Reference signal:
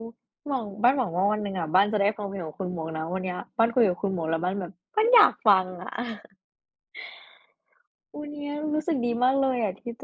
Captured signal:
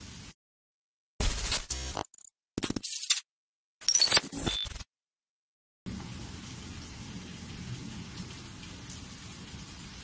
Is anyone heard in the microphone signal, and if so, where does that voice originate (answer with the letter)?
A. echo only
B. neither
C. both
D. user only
B